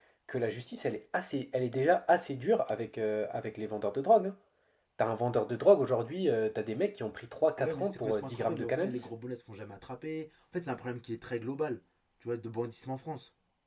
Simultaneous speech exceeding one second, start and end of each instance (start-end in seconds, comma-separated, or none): 7.6-9.0